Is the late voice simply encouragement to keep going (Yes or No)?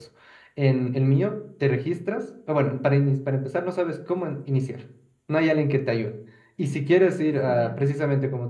Yes